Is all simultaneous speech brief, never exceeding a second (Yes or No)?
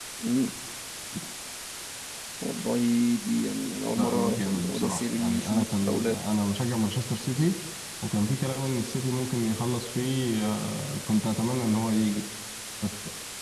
No